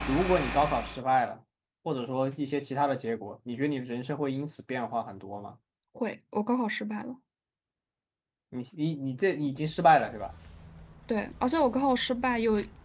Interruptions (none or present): none